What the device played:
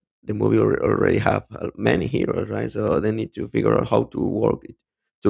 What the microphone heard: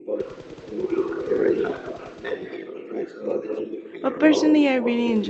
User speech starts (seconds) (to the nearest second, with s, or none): 4 s